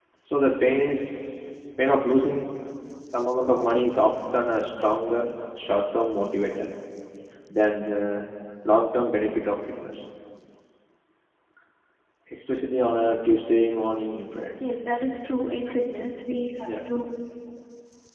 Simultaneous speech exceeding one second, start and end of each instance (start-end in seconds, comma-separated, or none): none